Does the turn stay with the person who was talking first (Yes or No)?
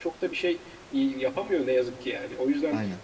Yes